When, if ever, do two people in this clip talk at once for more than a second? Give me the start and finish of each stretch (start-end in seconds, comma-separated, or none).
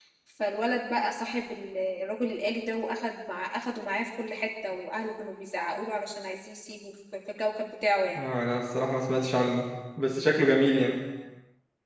none